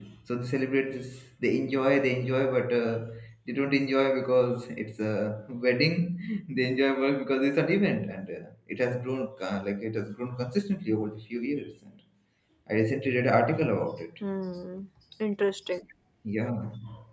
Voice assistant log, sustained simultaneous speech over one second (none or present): none